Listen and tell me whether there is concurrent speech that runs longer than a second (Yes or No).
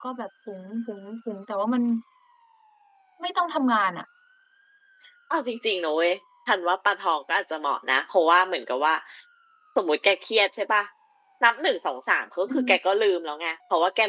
No